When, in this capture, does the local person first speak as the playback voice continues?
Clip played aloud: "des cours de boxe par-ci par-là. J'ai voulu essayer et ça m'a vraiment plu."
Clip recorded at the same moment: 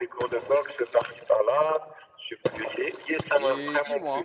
3.3 s

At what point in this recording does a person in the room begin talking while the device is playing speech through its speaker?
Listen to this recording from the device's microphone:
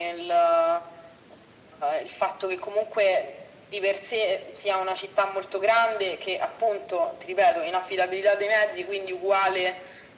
none

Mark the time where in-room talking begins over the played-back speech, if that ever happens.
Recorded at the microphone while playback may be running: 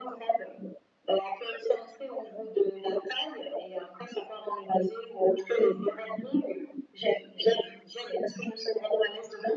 none

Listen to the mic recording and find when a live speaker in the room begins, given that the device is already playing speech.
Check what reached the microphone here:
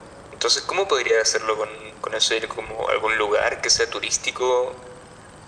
none

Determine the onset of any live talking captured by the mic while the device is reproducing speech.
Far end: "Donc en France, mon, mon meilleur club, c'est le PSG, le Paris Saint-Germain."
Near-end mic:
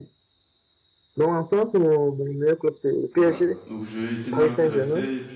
3.2 s

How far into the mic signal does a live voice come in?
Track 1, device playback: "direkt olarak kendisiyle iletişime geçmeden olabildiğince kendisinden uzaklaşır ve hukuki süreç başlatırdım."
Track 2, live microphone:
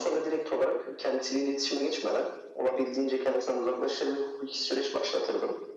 none

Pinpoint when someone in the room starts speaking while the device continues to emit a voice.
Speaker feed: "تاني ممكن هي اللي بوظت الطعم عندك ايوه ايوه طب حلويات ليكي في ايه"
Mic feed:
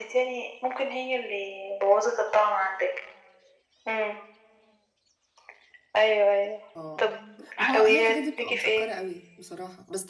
6.8 s

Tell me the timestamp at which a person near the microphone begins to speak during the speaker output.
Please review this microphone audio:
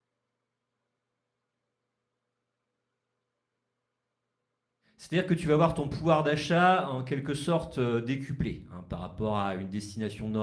5.0 s

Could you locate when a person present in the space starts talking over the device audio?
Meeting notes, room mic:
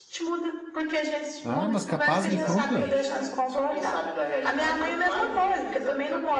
1.4 s

